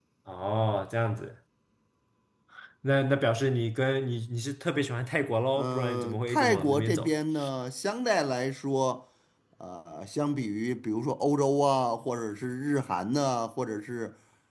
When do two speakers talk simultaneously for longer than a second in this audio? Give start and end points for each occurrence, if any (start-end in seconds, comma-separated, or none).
5.6-7.1